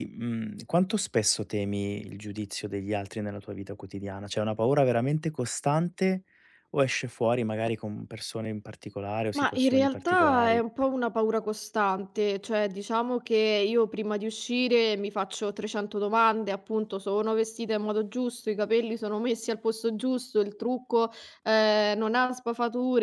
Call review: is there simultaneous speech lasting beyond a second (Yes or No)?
Yes